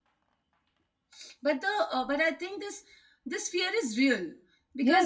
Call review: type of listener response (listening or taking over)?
taking over